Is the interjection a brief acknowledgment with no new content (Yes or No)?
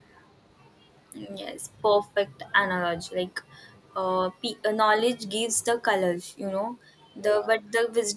Yes